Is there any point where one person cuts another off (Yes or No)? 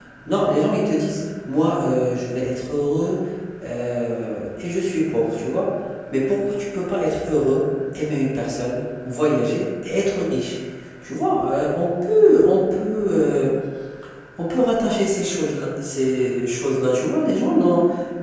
No